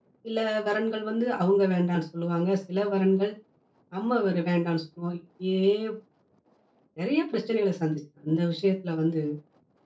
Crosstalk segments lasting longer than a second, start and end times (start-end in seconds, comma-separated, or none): none